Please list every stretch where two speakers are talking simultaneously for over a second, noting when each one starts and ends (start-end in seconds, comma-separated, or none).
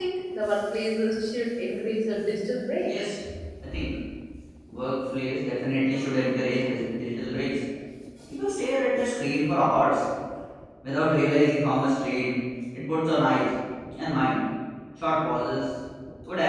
none